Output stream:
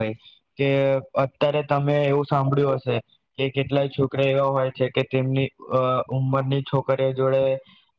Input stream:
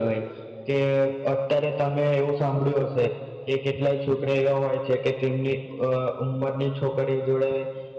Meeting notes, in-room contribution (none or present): none